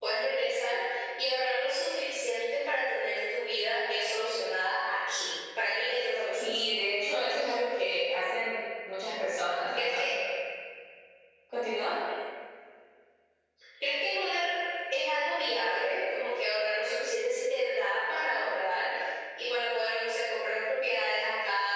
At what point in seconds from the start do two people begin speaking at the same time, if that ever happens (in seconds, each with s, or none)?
6.4 s